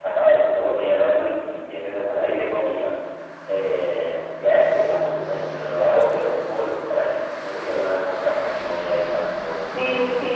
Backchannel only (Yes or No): No